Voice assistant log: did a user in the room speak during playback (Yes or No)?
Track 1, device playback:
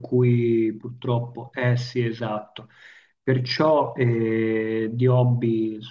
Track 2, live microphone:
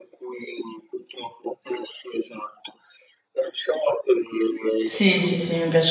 Yes